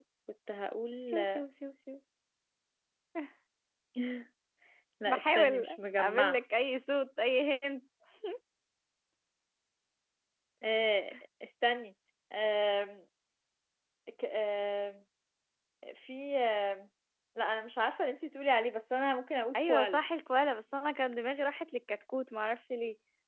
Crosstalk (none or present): present